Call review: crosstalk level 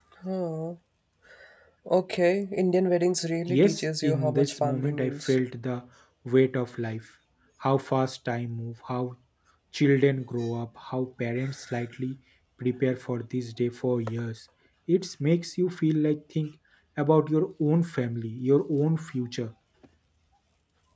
present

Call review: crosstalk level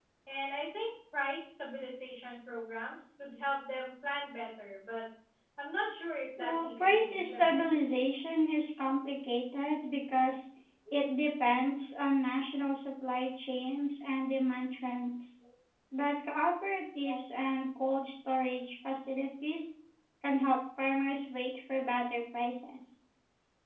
present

